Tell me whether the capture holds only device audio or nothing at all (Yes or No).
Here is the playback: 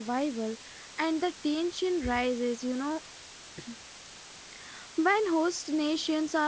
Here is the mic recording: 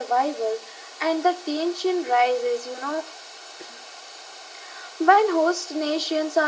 Yes